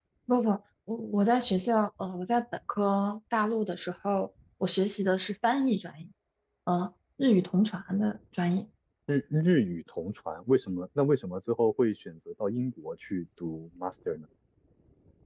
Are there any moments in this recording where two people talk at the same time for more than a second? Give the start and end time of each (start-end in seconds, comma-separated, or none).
none